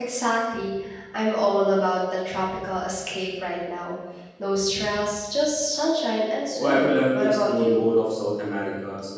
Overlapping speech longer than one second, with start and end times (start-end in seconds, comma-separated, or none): 6.6-7.8